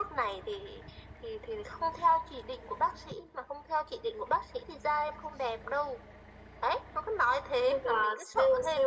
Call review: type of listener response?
taking over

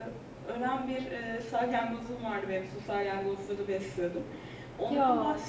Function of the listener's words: listening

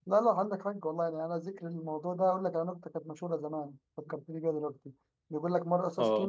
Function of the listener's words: listening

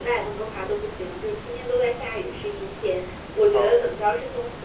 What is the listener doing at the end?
listening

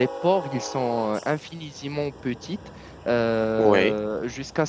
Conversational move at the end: listening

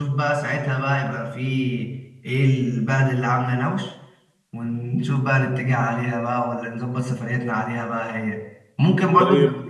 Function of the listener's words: listening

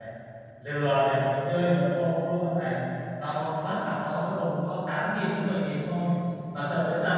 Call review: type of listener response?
listening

